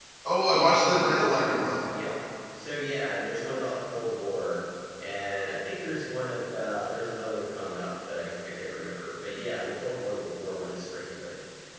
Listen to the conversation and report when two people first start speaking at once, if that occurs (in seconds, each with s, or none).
0.5 s